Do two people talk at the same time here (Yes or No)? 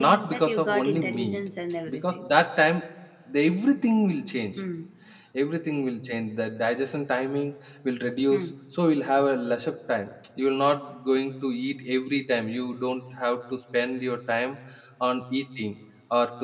Yes